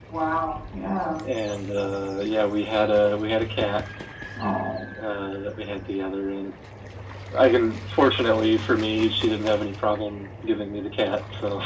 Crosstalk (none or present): none